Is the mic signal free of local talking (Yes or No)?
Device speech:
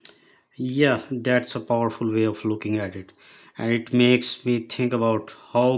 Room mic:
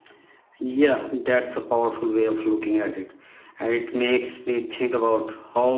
Yes